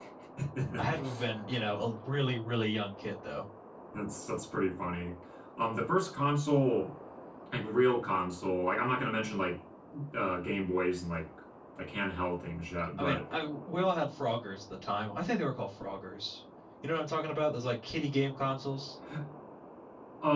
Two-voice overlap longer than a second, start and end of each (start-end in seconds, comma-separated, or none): none